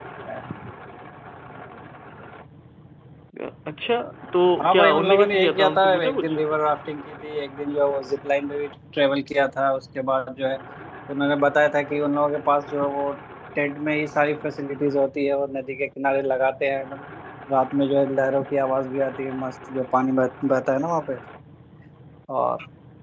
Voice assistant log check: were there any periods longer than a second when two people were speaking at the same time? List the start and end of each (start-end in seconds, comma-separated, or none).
4.6-6.3